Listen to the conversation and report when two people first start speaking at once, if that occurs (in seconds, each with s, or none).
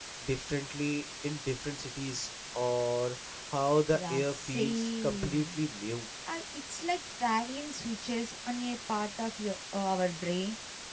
3.9 s